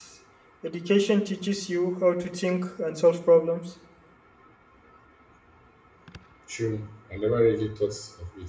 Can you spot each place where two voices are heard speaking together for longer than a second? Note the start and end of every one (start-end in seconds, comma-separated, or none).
none